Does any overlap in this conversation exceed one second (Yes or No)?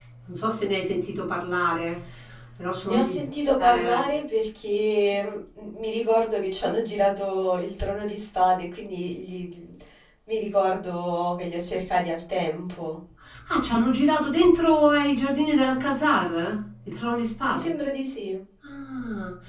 No